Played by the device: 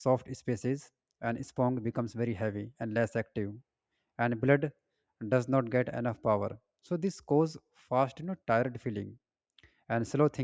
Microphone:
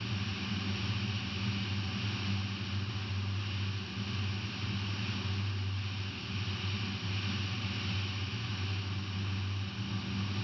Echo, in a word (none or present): none